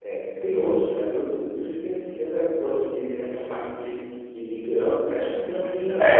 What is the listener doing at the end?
taking over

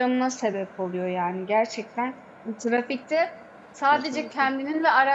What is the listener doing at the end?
listening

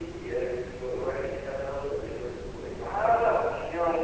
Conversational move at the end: taking over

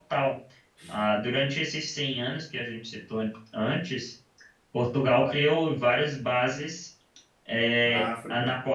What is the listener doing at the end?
listening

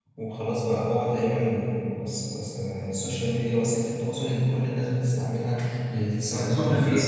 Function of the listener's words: taking over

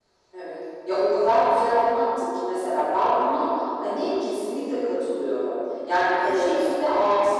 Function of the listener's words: listening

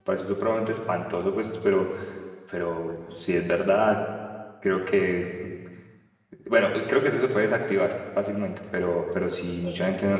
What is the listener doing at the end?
listening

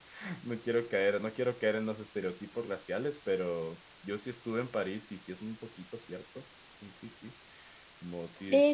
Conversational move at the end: taking over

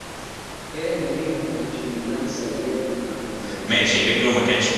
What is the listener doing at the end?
taking over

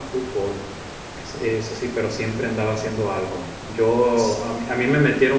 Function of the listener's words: listening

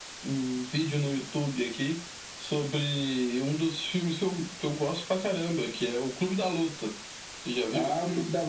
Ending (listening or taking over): taking over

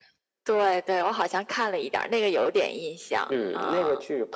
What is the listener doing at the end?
taking over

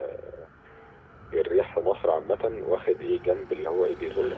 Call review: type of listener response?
taking over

